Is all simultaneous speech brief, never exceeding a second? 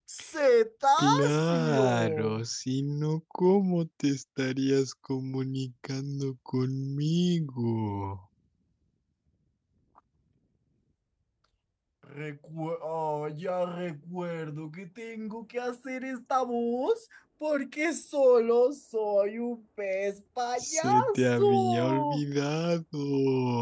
No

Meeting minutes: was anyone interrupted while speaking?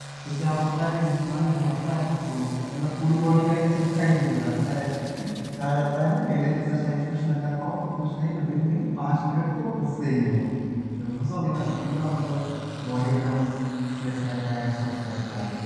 No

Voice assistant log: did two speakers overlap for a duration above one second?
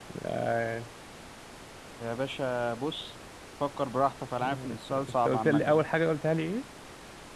Yes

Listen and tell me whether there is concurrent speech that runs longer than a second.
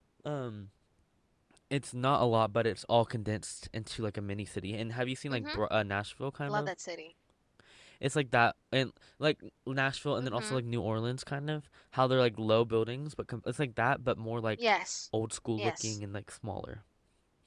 No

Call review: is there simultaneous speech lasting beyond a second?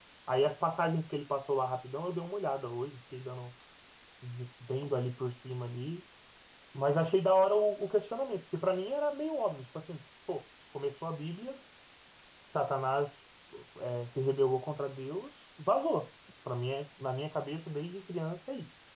No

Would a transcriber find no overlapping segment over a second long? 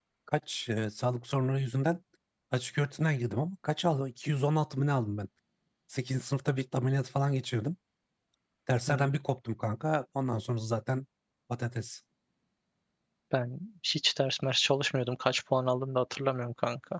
Yes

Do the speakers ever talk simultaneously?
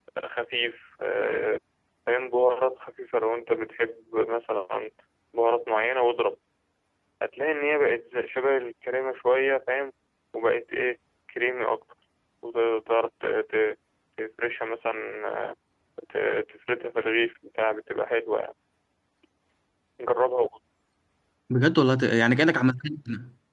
No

